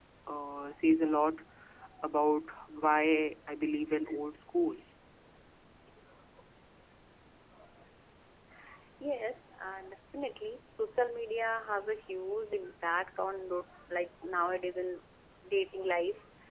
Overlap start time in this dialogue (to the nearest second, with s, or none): none